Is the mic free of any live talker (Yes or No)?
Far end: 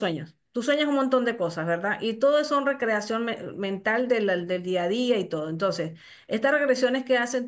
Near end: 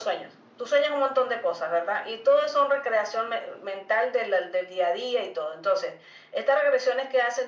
Yes